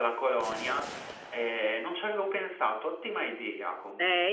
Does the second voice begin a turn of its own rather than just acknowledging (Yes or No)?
Yes